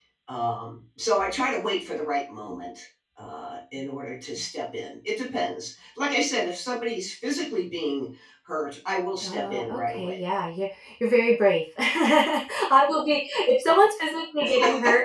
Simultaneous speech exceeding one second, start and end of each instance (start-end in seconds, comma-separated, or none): 9.2-10.4